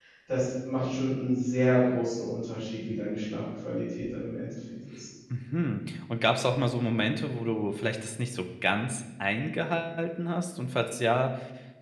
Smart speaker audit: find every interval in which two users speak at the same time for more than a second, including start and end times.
none

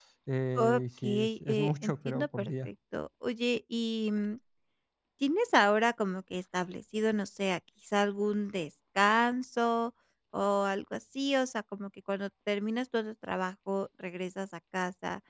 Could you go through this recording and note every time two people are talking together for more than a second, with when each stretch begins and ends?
0.6-2.7

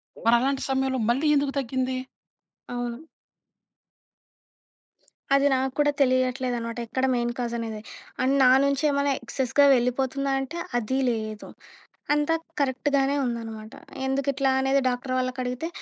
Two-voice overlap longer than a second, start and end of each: none

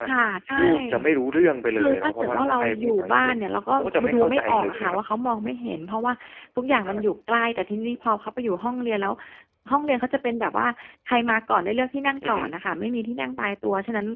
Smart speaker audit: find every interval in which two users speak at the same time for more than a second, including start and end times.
1.8-3.3, 3.8-5.0

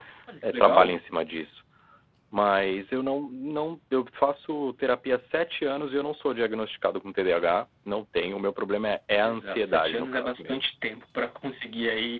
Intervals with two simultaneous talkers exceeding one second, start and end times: 9.2-10.6

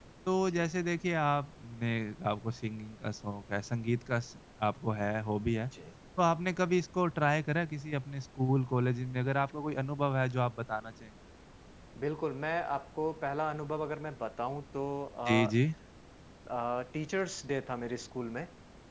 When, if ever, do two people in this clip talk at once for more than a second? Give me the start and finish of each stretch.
none

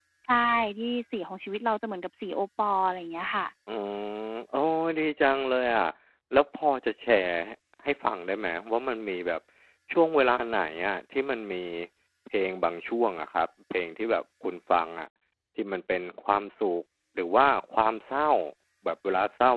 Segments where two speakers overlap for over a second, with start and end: none

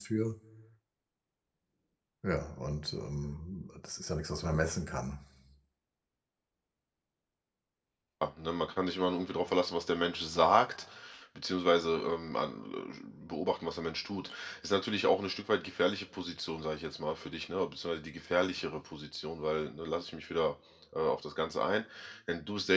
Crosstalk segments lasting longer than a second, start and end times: none

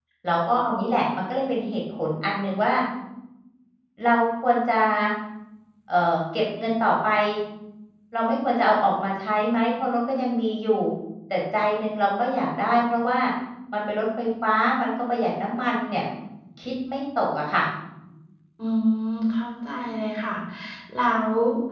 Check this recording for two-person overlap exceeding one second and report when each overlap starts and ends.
none

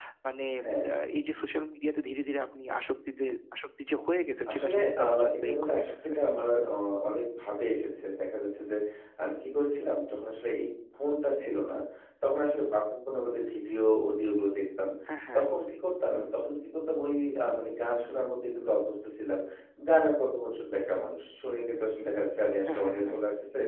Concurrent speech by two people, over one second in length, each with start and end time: 4.5-6.1

